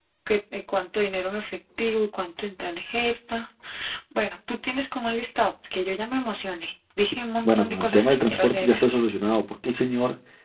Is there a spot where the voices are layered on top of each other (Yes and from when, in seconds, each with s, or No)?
Yes, from 7.4 s